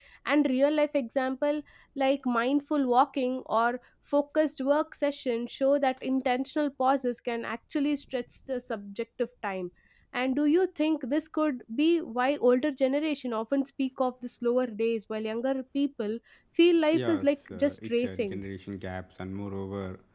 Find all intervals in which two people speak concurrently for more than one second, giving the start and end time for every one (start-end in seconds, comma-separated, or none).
16.9-18.4